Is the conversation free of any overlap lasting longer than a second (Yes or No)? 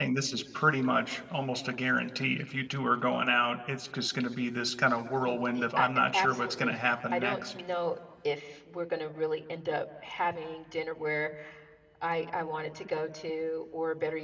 No